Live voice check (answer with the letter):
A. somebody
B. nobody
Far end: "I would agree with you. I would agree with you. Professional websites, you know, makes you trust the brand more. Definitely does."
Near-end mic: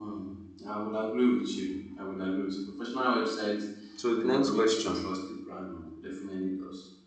A